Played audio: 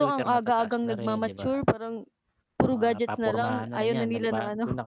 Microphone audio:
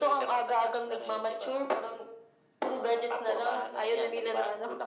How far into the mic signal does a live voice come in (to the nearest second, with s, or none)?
none